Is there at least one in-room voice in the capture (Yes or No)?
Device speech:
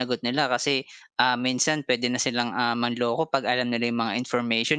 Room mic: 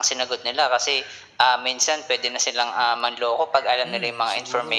Yes